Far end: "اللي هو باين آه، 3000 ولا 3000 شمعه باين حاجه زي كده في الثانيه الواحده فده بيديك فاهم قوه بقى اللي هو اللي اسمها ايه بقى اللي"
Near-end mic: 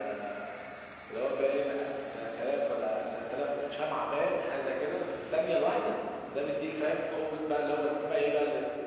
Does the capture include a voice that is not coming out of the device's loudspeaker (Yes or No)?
No